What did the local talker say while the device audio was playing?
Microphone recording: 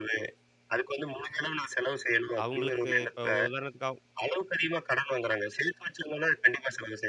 அவங்களுக்கு இப்ப ஒரு உதாரணத்துக்கு ஆகும்

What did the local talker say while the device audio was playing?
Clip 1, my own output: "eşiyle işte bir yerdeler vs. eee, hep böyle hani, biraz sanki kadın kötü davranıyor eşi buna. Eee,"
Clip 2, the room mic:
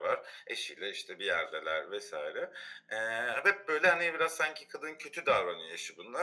none

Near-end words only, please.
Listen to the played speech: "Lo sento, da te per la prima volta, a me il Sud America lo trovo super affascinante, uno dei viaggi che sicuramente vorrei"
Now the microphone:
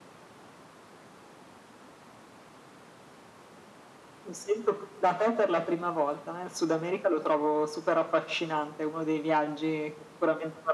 none

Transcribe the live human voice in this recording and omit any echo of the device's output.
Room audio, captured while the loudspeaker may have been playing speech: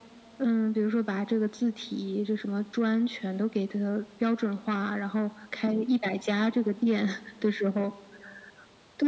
none

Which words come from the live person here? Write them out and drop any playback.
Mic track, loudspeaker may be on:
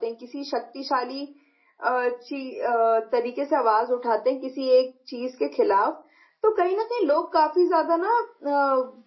none

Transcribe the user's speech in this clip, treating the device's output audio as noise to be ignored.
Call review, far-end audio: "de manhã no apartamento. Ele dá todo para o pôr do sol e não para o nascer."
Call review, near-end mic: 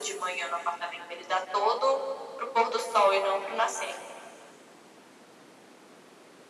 none

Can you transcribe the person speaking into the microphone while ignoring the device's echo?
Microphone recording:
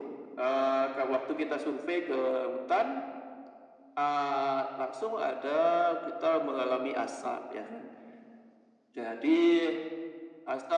none

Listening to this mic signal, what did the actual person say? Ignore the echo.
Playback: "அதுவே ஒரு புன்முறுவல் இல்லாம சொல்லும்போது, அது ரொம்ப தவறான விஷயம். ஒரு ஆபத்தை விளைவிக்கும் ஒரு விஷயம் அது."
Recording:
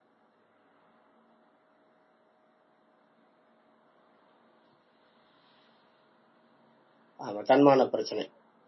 ஆமா. தன்மான பிரச்சனை.

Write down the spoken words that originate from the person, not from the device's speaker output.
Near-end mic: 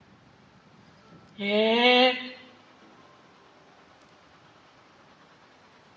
へえ。

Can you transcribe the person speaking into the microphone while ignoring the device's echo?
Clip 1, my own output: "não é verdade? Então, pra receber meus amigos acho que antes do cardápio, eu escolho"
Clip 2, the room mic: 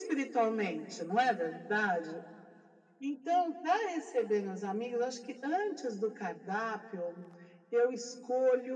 none

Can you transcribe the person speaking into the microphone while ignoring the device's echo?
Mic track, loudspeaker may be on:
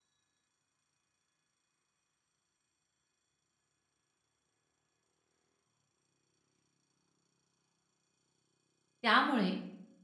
त्यामुळे

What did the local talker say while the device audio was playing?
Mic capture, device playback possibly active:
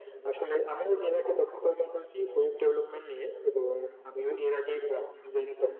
none

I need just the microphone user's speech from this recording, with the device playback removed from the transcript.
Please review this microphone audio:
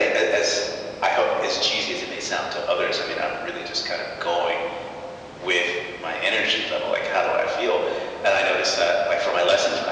none

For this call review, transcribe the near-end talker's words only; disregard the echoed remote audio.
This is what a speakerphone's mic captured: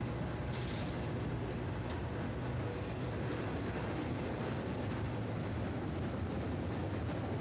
none

